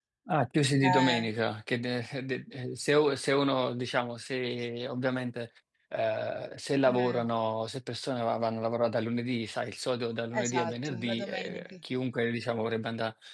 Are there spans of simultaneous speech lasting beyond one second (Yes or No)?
Yes